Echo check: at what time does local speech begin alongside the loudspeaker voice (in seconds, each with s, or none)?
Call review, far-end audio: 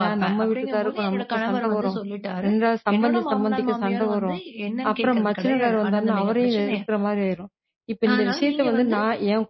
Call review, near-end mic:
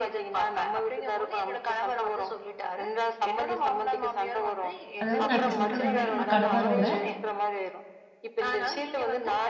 5.0 s